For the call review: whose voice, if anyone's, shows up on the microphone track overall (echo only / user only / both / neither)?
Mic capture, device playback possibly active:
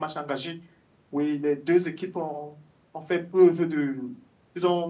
echo only